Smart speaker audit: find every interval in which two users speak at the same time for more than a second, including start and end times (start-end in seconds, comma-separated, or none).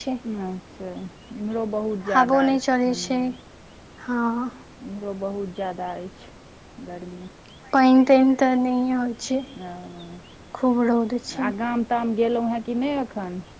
none